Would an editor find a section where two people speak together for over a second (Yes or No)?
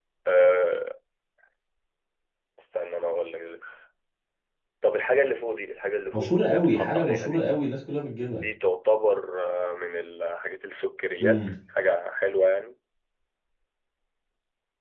Yes